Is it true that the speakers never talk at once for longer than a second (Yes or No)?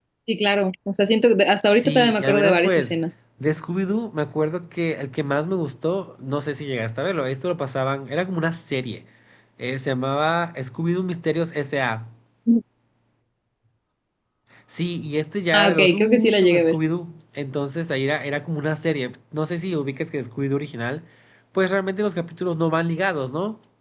No